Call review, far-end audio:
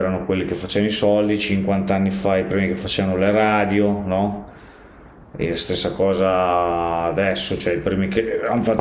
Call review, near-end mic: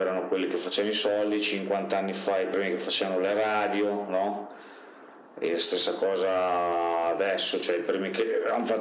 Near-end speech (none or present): none